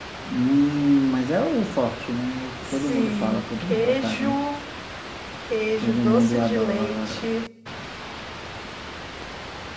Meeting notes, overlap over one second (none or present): present